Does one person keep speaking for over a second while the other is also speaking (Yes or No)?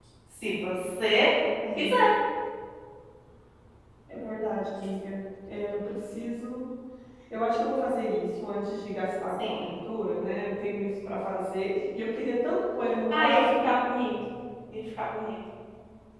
No